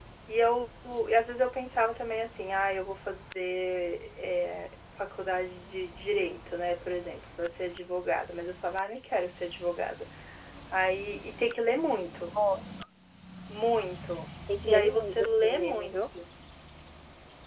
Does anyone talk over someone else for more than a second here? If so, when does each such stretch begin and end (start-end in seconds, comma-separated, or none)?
14.6-16.0